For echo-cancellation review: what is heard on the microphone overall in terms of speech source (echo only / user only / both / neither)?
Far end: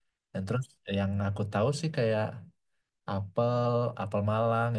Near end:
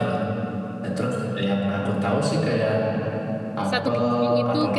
both